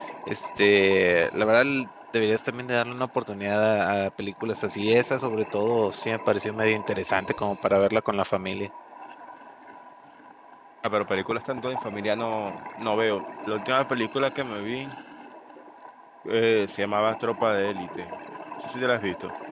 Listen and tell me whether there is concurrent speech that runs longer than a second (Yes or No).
No